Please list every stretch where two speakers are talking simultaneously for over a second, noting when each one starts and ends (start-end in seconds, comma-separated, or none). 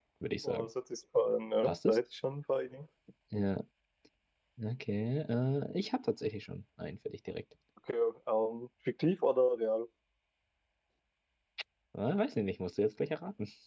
none